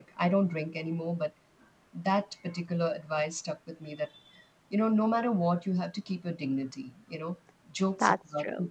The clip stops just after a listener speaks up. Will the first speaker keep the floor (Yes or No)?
Yes